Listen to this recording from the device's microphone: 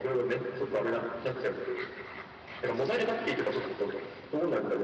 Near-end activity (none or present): none